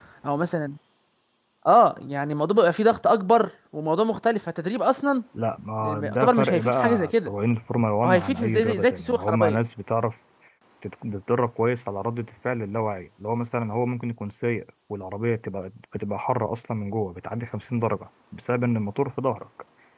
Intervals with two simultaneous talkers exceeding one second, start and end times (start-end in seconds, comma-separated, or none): 5.8-7.3, 8.0-9.6